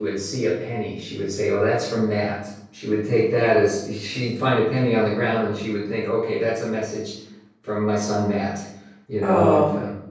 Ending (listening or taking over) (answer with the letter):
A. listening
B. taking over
B